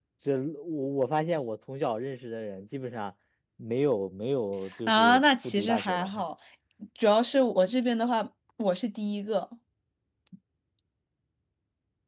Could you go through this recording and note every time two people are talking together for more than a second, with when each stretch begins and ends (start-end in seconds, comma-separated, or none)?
4.9-6.1